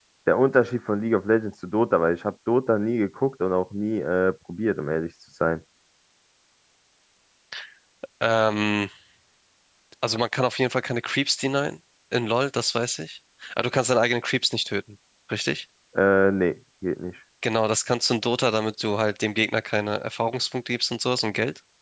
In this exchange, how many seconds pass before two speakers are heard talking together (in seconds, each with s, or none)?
none